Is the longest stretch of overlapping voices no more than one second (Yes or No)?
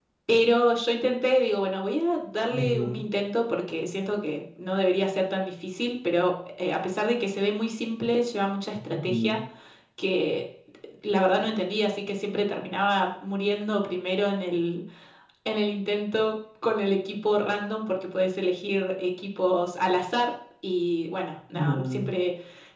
Yes